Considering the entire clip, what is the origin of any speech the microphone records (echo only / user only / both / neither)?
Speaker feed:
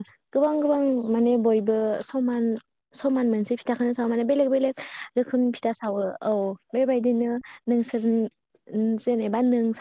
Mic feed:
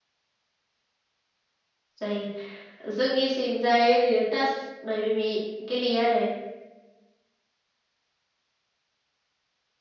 user only